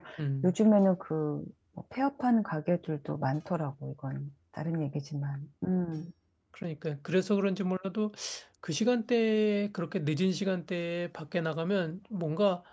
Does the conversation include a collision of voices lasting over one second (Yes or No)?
No